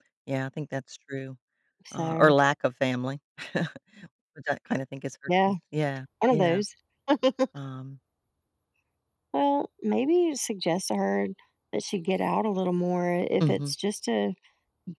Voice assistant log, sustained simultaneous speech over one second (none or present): none